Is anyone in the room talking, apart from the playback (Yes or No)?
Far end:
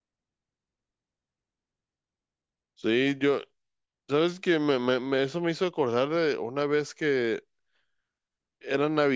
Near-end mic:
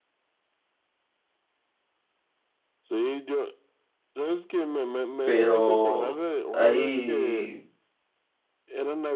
Yes